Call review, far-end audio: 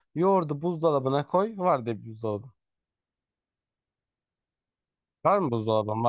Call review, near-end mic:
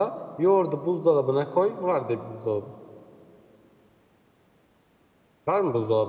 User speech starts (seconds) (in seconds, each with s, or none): none